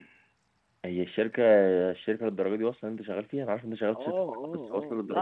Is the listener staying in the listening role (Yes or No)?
No